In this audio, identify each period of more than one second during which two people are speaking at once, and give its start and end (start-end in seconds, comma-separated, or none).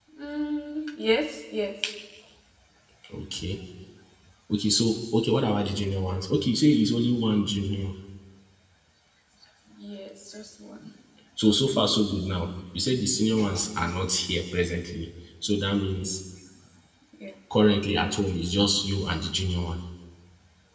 none